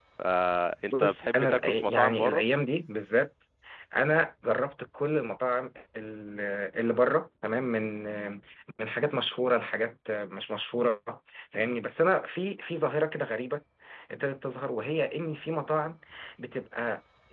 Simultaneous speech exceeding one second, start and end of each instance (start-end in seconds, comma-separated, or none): 0.9-2.4